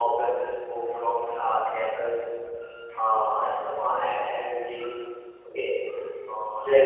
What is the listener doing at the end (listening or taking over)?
taking over